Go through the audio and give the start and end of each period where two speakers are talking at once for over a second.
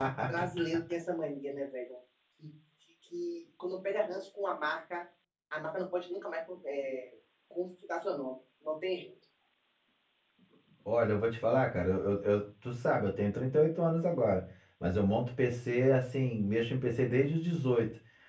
none

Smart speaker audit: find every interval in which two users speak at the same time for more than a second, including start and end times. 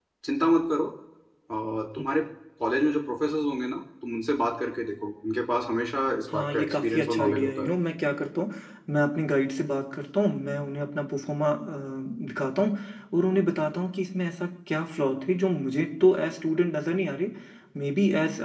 6.3-7.7

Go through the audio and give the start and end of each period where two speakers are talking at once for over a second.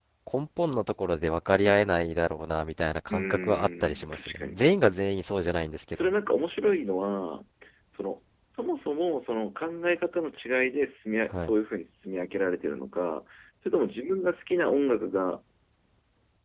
3.1-4.6

